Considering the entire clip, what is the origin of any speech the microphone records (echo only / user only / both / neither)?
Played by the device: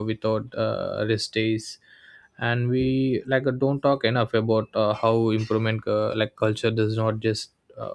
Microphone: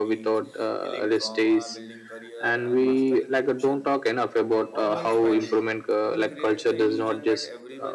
both